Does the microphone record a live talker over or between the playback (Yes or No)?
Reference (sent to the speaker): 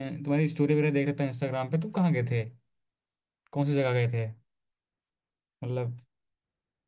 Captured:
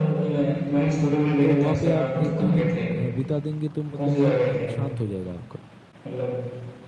Yes